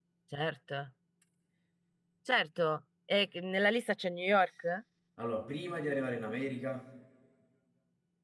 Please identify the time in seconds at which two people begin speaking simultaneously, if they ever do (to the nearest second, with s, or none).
none